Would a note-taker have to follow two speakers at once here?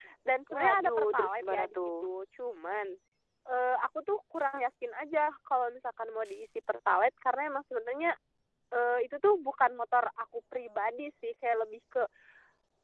Yes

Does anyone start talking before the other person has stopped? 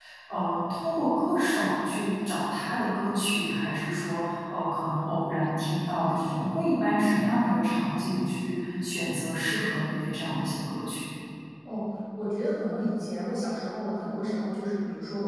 No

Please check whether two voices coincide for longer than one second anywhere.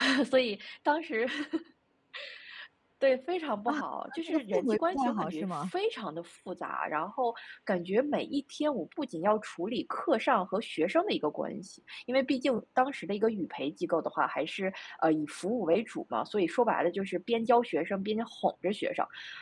Yes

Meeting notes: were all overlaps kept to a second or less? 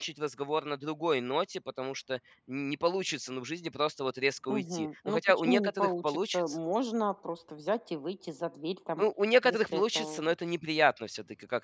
No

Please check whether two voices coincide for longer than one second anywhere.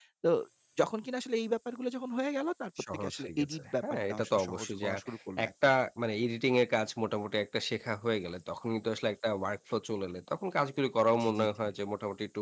Yes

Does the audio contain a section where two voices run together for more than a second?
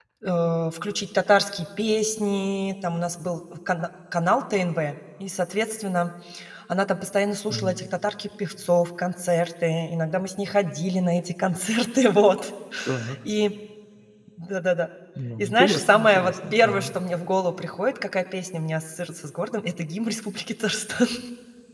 Yes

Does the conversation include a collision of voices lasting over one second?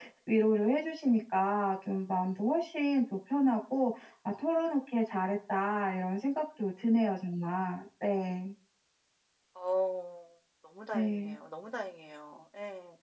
No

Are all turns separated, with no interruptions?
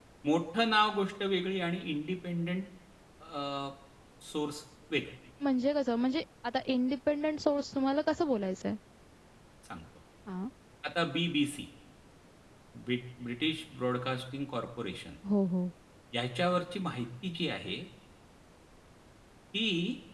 Yes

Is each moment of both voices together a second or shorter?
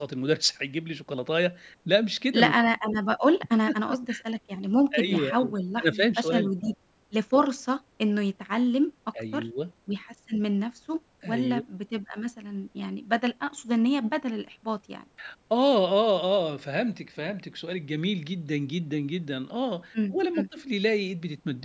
No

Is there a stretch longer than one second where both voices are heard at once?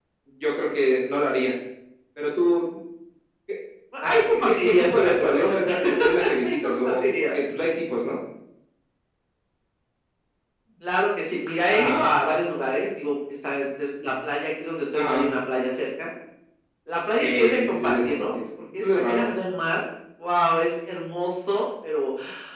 Yes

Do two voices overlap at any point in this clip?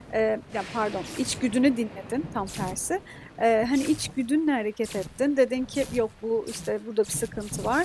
No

